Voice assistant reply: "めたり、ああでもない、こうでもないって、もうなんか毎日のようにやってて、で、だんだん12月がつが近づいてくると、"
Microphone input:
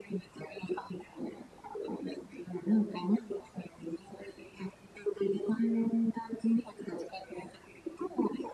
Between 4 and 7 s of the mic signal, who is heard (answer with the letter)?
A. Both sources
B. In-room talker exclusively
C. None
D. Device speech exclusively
D